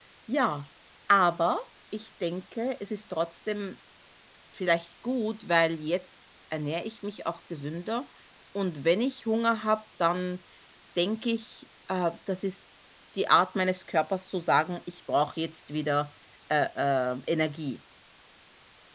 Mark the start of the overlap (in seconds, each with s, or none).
none